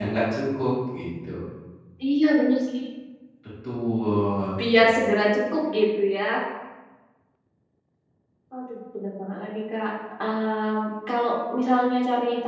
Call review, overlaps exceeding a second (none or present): none